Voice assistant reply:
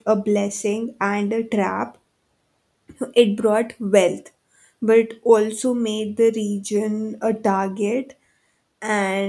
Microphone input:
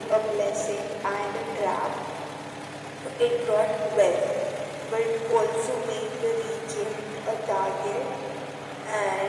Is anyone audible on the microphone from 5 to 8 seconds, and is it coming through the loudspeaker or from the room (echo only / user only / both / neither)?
echo only